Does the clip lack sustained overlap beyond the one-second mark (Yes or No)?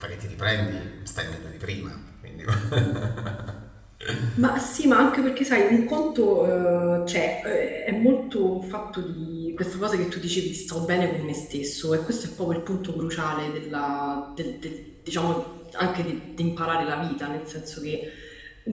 Yes